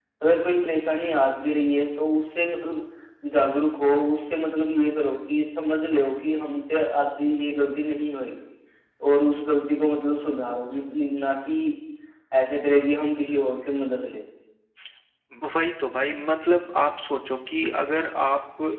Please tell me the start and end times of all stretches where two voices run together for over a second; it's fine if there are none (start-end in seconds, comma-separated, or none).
none